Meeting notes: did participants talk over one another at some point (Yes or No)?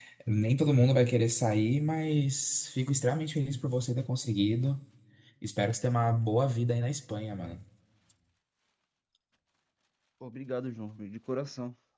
No